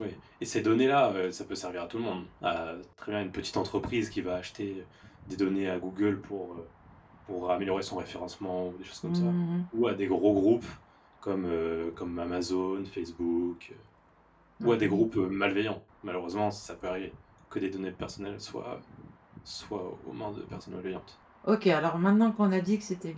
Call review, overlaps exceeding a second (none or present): none